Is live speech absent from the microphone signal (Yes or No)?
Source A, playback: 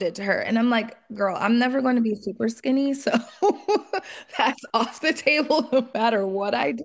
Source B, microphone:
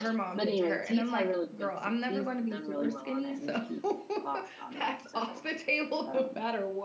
No